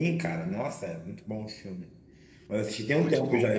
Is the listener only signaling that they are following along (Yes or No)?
Yes